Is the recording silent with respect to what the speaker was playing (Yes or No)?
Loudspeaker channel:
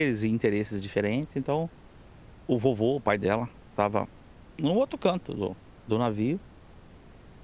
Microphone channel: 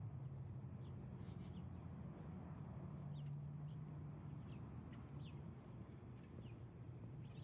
Yes